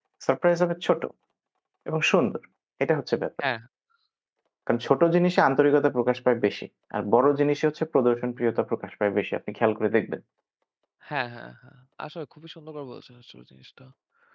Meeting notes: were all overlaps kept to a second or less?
Yes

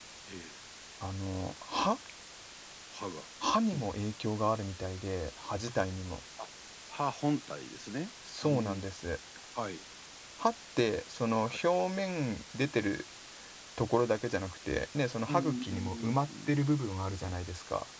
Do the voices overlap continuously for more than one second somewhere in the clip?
Yes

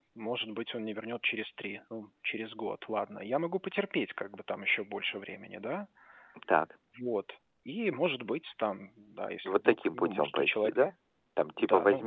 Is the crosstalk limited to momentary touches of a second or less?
No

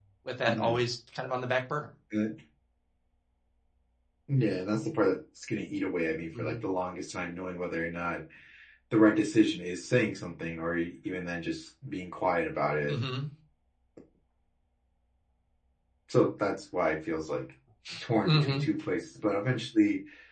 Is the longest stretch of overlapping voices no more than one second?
Yes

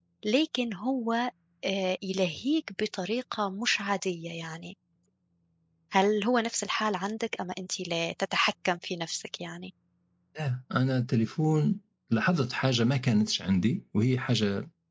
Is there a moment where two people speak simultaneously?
No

